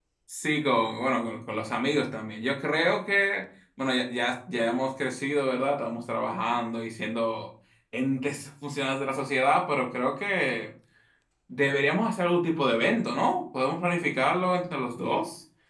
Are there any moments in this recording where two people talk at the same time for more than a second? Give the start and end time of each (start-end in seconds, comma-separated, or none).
none